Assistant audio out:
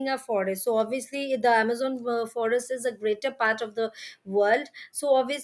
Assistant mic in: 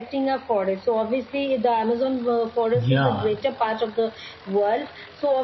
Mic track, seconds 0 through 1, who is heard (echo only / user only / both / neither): echo only